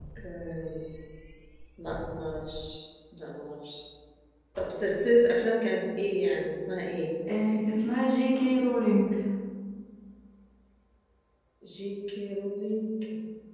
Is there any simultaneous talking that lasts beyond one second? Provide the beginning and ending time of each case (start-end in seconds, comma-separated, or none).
none